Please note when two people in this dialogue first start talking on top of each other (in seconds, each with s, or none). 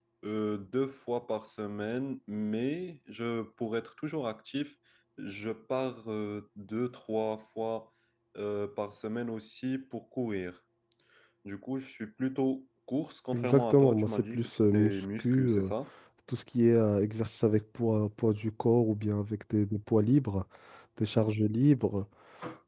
13.3 s